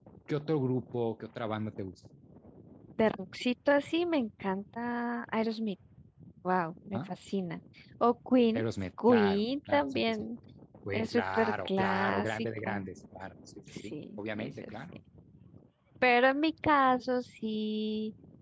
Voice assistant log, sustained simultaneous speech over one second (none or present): present